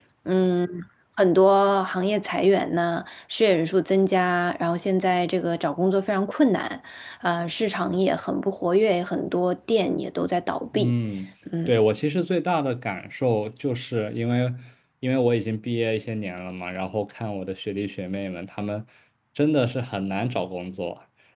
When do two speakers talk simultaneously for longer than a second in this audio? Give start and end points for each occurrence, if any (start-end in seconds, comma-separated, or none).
none